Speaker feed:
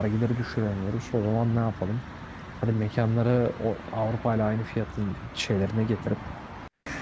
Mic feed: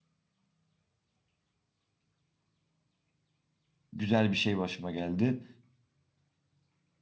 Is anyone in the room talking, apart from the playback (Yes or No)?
Yes